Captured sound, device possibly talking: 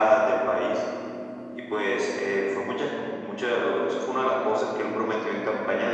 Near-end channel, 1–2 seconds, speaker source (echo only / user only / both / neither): echo only